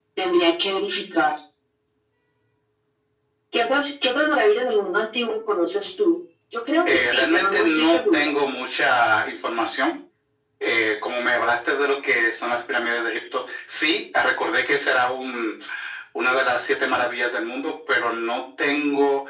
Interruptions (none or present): present